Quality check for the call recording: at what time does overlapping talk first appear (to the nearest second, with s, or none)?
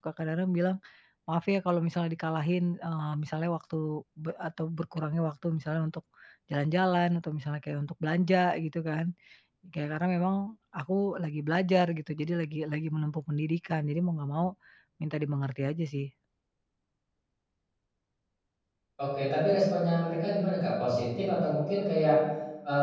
none